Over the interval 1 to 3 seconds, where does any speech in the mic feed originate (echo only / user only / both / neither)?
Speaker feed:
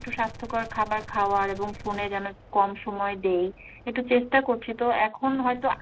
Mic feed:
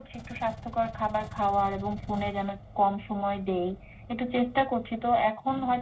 echo only